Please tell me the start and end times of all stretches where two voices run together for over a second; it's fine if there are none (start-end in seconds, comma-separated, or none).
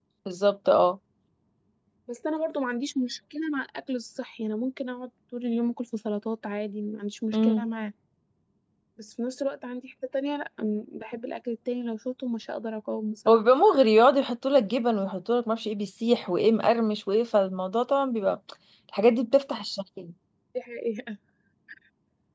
none